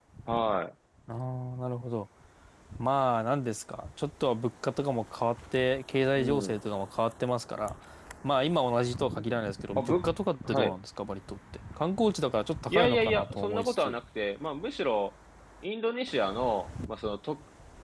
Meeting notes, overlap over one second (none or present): present